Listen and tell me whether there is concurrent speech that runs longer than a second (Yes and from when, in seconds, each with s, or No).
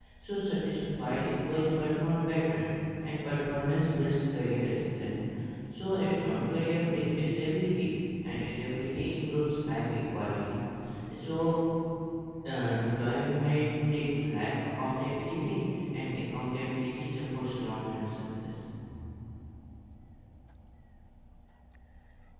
No